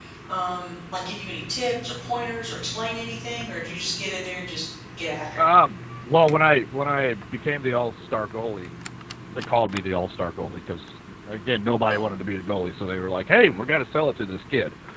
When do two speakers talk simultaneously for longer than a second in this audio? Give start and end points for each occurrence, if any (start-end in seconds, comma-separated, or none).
none